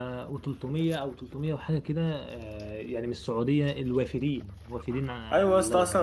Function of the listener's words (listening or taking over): taking over